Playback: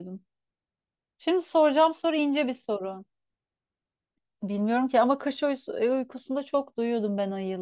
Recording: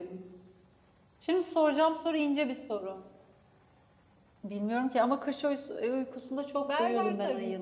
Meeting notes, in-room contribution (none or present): present